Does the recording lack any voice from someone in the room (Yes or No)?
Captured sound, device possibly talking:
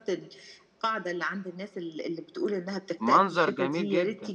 No